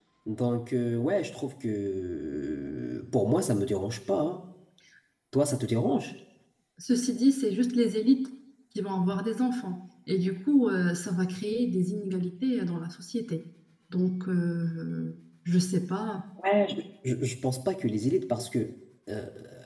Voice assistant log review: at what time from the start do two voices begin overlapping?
none

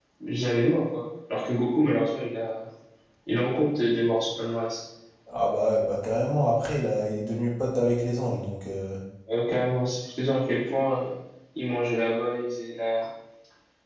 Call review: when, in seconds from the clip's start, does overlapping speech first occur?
none

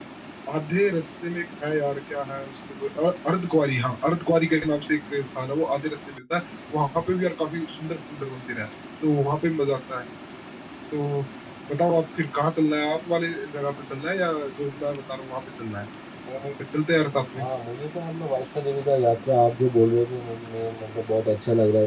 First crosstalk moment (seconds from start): none

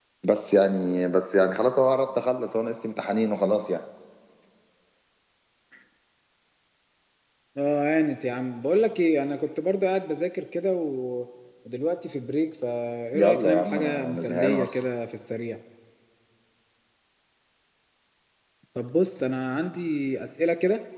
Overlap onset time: 13.1 s

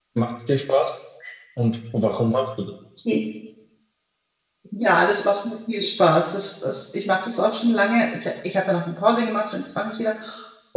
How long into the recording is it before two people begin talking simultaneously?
none

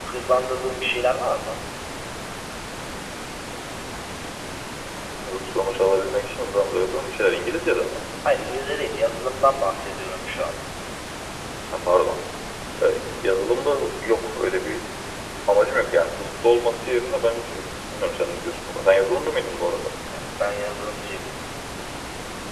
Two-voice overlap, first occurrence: none

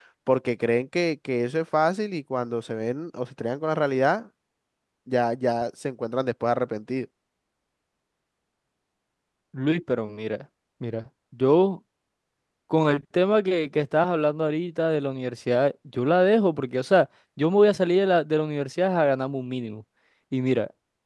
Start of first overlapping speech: none

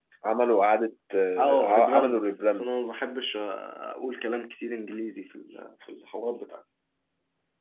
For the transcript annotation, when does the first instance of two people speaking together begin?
1.4 s

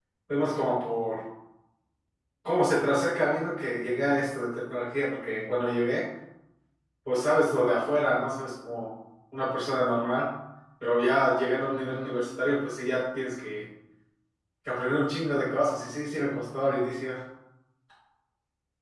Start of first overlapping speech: none

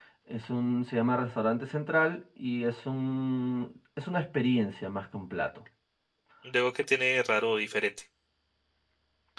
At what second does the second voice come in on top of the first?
none

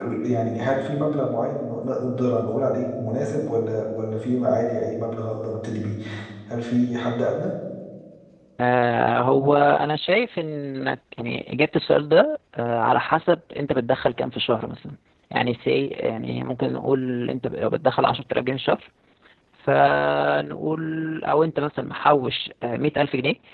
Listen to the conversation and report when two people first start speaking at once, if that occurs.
none

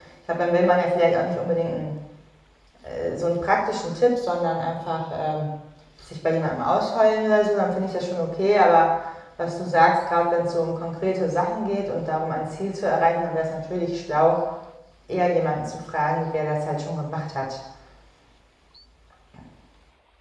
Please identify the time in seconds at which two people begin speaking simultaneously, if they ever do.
none

